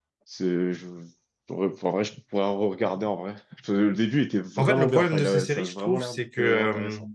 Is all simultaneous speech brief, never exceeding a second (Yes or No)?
No